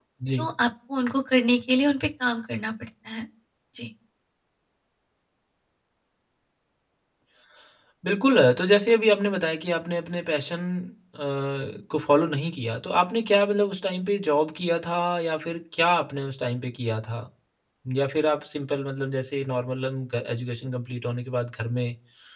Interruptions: none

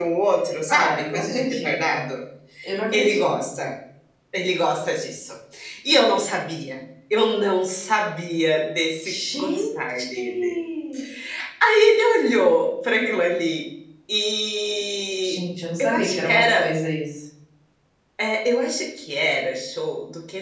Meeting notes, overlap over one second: present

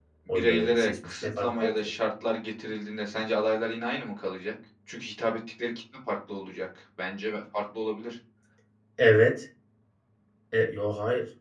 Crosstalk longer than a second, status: present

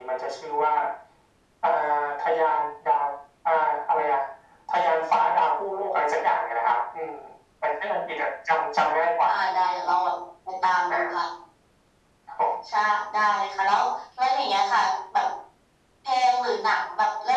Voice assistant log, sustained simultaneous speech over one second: none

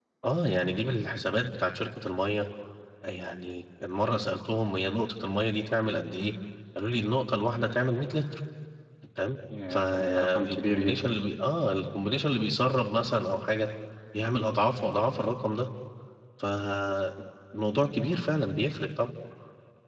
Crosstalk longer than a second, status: present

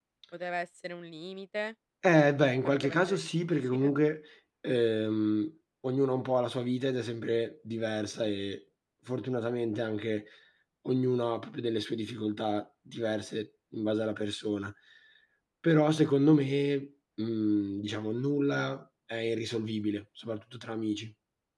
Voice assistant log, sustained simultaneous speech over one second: present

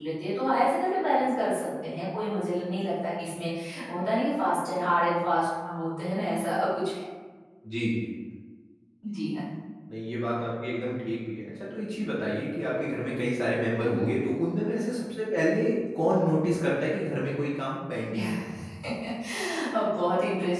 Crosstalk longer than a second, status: none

